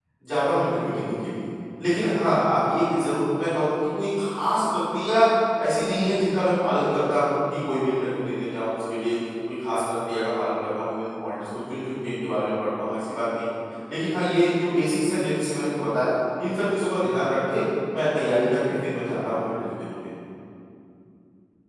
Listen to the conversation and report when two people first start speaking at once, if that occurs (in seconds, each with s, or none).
none